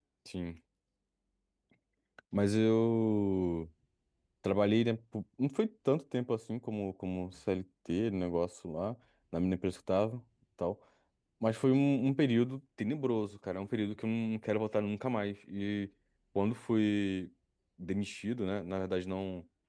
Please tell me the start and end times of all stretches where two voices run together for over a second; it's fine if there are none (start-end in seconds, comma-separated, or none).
none